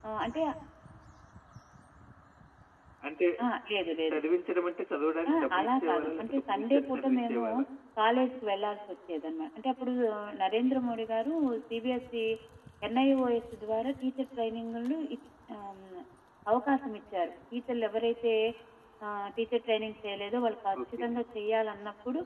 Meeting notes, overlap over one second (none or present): present